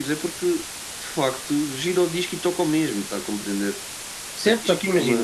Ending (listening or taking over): taking over